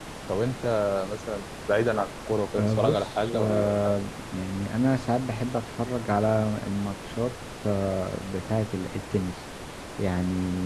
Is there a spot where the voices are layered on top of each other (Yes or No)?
Yes